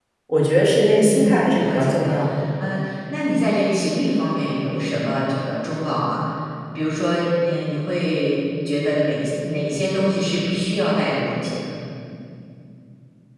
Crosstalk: present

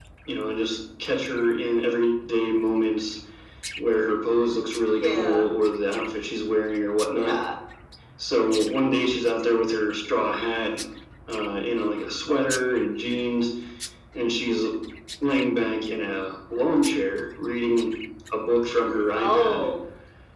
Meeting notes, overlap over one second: none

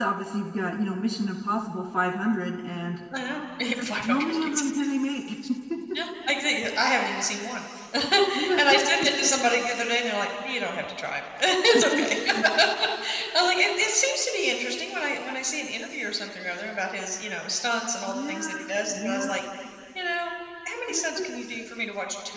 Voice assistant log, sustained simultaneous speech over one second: present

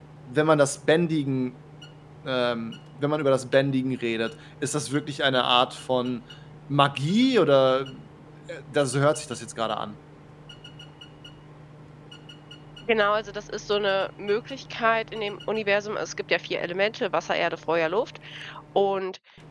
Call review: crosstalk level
none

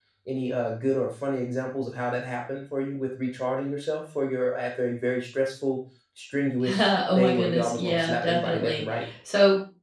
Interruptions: present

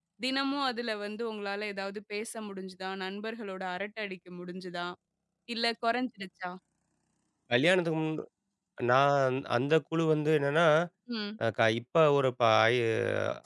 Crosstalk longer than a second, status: none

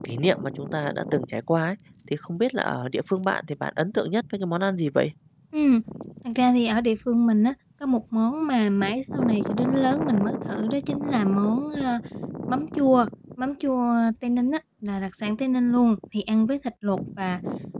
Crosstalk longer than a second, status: none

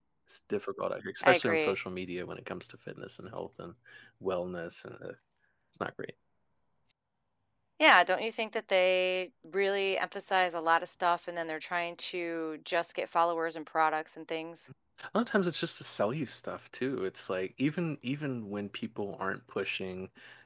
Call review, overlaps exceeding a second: none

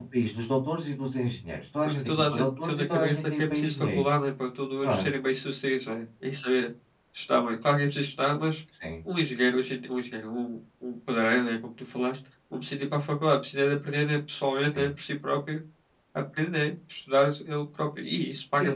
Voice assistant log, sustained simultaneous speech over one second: present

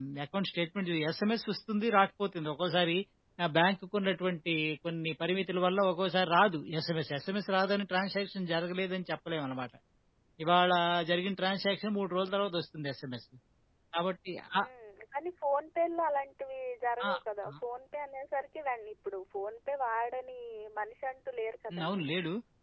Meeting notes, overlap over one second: none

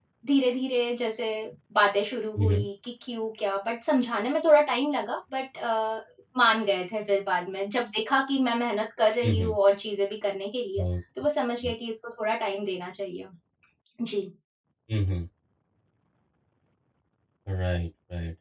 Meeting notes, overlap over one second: none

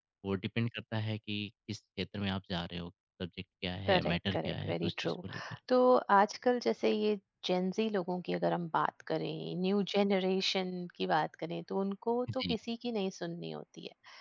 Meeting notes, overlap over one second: present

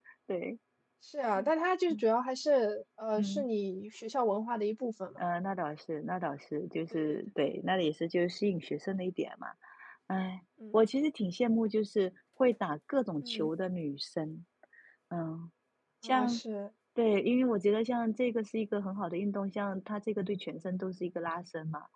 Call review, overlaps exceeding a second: none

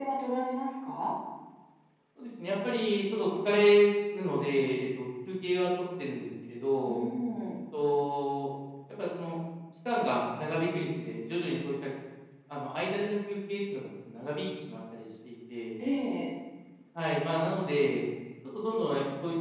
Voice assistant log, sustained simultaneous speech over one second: none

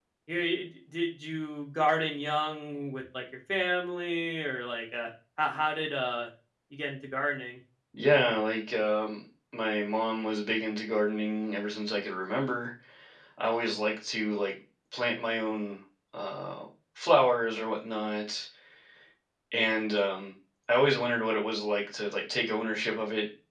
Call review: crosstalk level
none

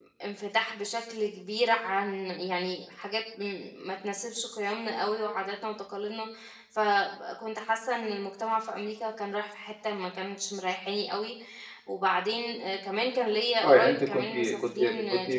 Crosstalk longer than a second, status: present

